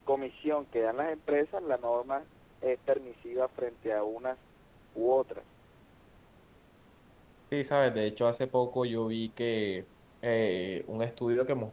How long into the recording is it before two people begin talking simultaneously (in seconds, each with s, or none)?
none